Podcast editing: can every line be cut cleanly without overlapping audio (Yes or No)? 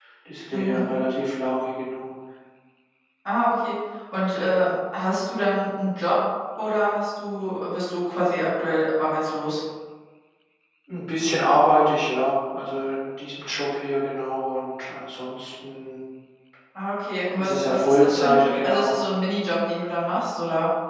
No